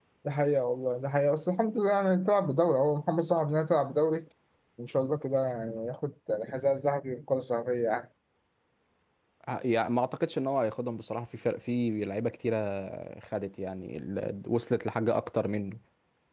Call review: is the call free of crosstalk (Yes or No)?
Yes